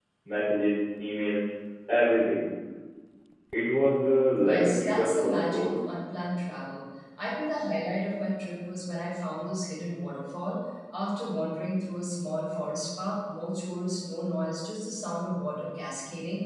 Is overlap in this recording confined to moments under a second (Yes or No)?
No